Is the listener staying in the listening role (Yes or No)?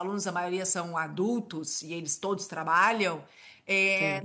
Yes